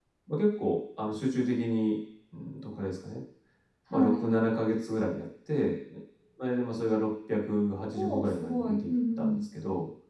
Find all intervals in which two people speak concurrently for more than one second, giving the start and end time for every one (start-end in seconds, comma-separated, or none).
7.9-9.4